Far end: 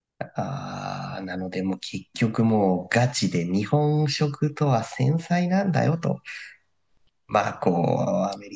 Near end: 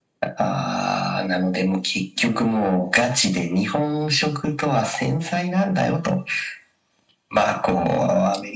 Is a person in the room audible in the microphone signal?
No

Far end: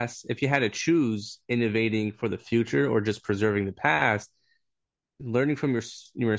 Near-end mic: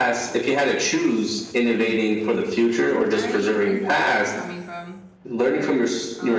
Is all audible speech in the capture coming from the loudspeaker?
No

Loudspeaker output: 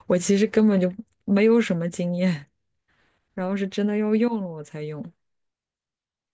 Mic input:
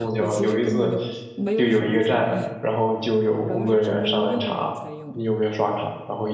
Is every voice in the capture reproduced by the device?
No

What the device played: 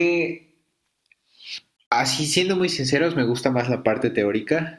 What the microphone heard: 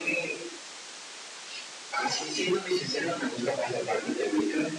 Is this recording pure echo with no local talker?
Yes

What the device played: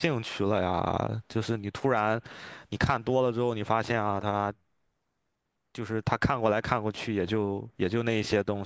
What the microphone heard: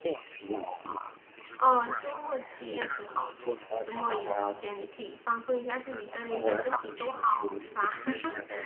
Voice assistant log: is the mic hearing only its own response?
No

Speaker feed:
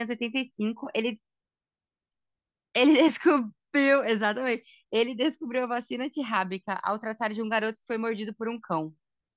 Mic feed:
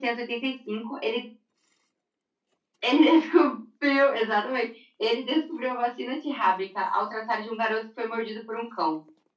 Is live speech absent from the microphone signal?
Yes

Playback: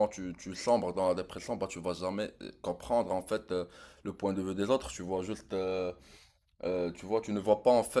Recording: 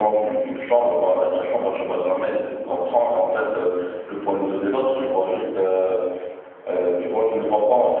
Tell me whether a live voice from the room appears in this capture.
No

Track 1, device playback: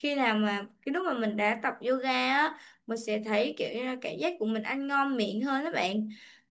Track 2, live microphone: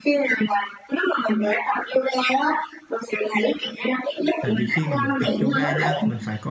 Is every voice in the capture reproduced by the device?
No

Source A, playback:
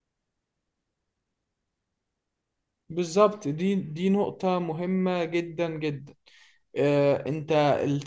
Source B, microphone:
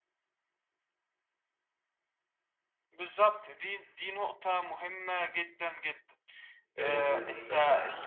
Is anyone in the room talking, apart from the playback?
Yes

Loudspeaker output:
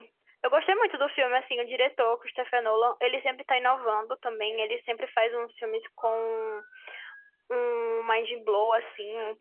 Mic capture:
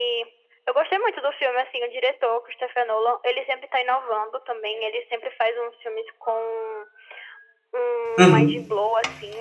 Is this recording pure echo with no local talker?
No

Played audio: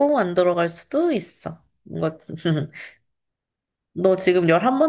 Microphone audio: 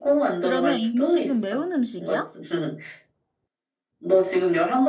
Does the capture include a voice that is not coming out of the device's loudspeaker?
Yes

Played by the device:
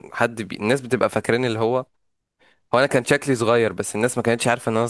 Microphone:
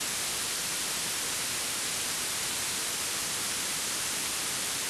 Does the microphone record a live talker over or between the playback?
No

